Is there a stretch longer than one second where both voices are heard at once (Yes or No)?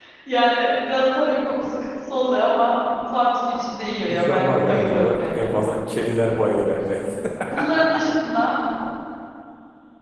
Yes